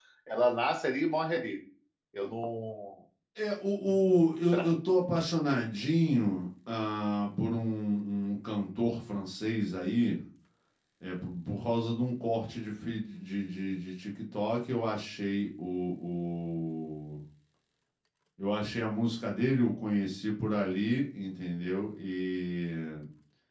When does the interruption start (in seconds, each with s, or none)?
none